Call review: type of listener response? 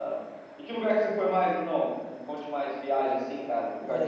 taking over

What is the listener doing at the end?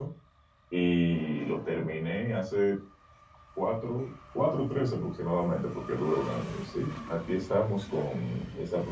listening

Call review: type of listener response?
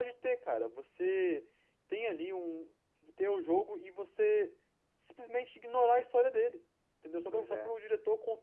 listening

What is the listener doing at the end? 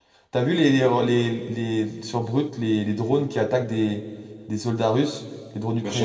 taking over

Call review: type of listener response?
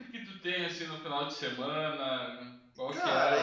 taking over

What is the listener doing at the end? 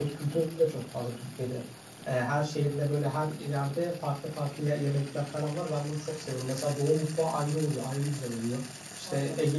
listening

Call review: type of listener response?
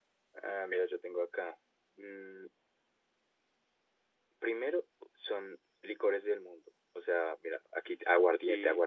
listening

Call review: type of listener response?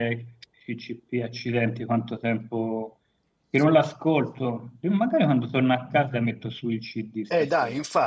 taking over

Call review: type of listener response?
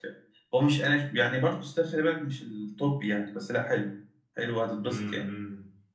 taking over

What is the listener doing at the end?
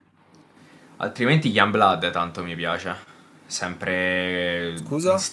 listening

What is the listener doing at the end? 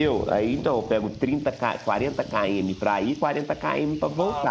taking over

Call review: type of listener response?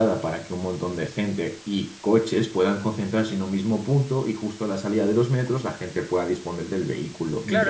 taking over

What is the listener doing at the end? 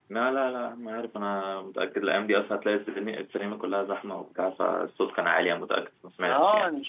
taking over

